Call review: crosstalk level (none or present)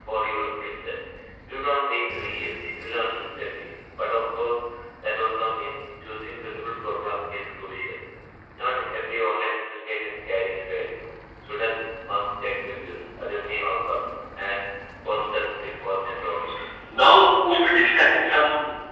none